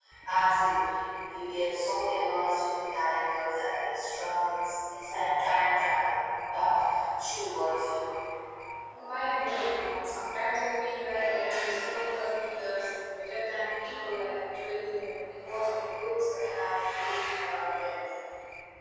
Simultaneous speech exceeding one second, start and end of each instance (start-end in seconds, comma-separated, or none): none